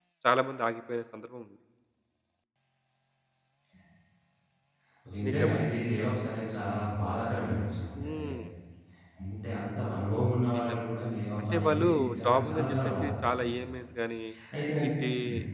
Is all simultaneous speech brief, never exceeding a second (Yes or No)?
No